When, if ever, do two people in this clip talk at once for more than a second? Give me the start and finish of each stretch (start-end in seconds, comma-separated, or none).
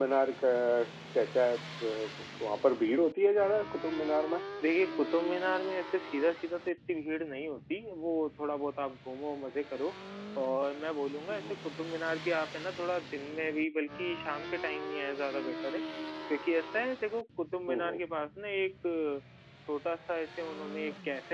none